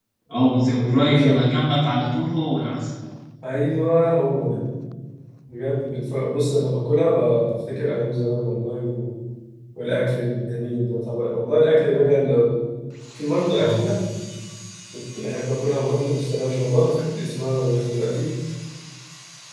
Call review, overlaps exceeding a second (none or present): present